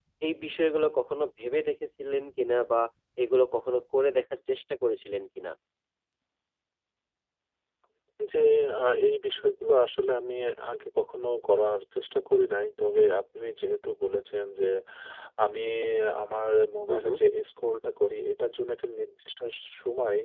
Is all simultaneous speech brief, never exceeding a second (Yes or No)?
Yes